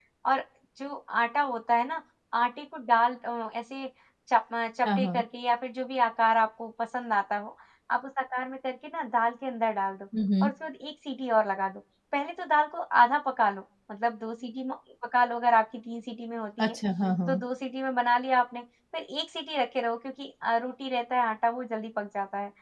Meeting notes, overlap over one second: none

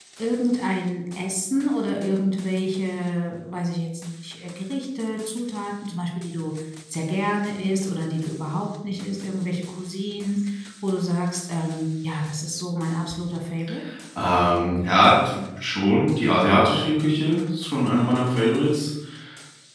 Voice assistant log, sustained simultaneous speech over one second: none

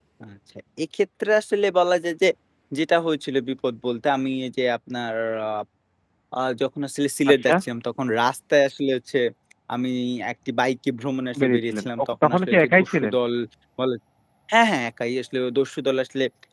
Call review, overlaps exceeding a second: present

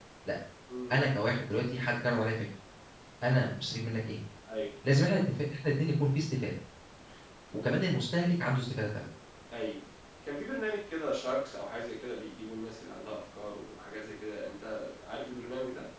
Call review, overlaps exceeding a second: none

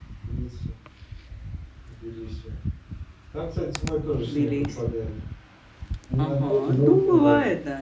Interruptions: present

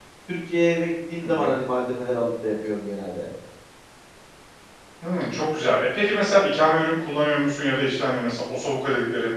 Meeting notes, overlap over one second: none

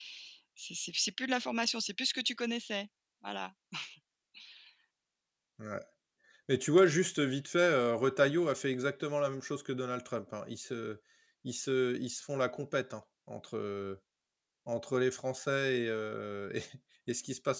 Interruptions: none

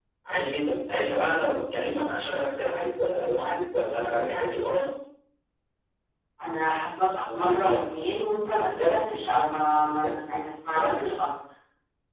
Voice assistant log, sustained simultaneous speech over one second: none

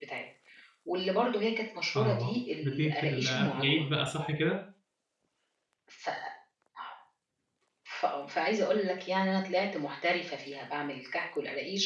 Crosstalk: present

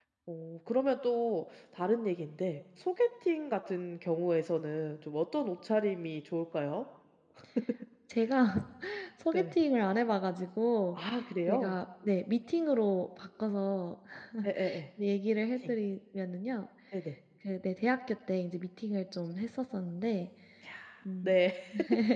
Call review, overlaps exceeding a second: none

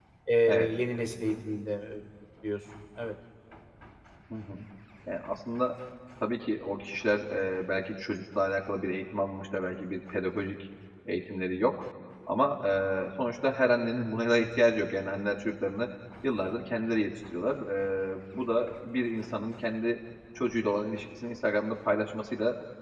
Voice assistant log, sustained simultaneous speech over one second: none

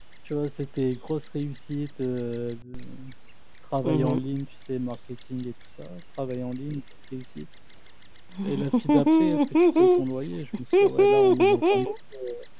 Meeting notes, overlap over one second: present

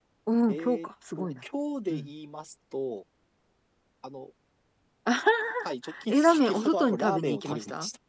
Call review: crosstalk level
present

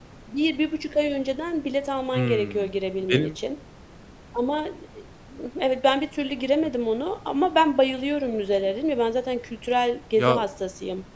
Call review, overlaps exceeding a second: none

